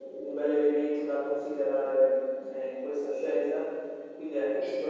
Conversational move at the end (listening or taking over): listening